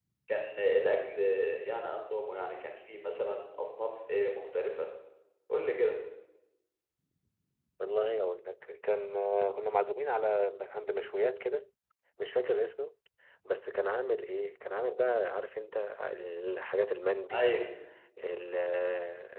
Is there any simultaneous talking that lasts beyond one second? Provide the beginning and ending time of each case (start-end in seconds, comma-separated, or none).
none